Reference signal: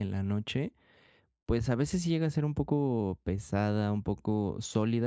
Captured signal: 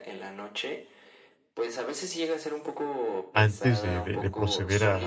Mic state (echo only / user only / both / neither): both